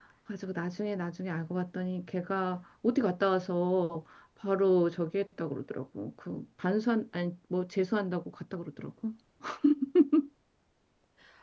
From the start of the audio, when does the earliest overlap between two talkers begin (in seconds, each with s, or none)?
none